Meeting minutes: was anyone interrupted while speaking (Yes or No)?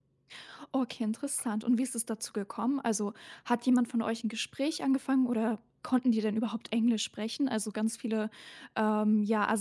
No